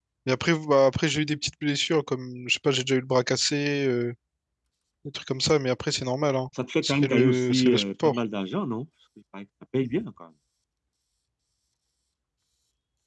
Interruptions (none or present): present